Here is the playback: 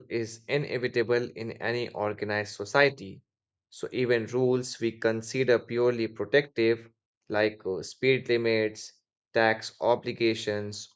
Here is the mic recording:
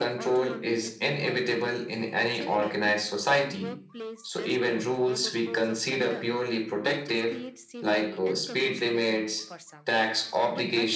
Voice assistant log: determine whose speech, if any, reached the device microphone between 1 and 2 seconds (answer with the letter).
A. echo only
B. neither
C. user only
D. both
D